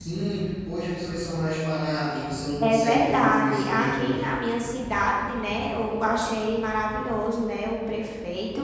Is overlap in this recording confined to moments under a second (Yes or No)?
No